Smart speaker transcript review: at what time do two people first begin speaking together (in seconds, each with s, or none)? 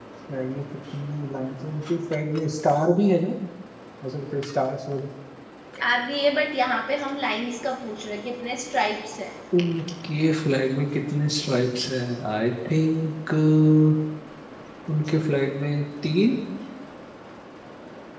none